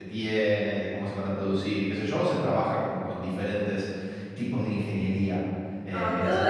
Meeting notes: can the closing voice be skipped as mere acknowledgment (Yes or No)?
No